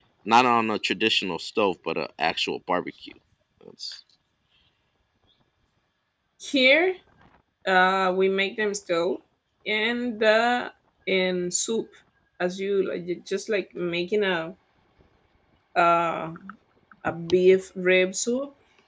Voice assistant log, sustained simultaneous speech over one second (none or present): none